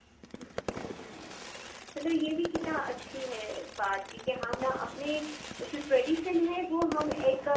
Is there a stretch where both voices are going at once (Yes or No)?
No